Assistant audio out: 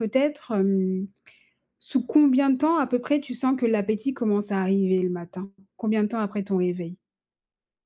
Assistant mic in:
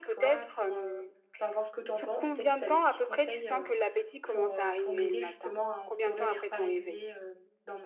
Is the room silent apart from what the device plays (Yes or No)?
No